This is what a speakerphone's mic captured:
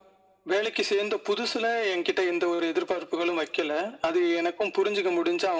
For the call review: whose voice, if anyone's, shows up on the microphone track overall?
echo only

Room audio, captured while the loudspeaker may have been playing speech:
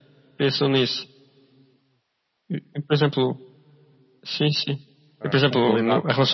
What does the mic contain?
both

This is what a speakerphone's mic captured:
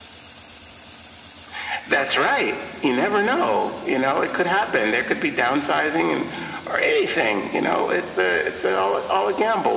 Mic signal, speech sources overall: both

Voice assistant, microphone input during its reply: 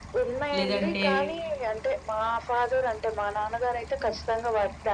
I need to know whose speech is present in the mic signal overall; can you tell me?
both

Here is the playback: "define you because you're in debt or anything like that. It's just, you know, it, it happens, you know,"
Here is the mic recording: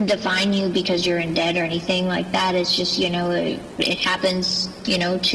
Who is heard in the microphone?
echo only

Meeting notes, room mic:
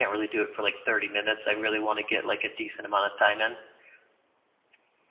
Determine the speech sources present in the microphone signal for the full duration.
echo only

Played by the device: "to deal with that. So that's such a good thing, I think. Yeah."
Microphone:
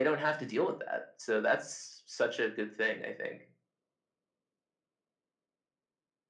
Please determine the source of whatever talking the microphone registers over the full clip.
echo only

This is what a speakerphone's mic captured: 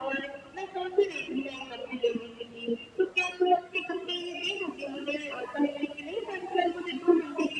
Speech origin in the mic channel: echo only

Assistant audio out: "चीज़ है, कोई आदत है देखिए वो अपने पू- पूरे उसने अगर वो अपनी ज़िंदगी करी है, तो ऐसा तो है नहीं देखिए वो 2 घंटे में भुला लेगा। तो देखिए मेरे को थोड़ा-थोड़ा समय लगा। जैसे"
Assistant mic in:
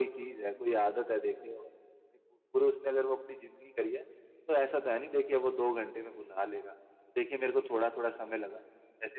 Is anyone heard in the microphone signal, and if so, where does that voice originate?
echo only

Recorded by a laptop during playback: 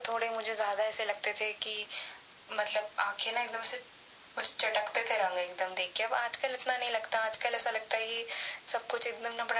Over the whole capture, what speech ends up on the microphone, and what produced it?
echo only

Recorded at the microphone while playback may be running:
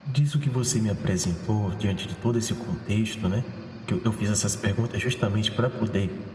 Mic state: user only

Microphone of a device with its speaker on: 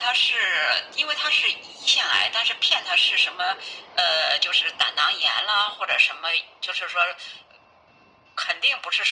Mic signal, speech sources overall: echo only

